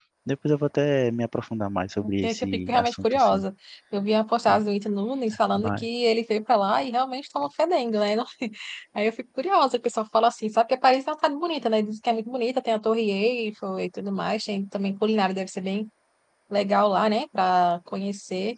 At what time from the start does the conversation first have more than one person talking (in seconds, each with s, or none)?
2.2 s